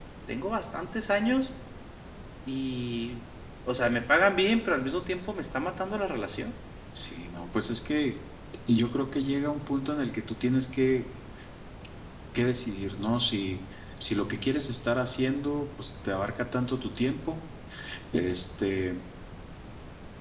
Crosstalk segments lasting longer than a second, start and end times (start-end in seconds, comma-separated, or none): none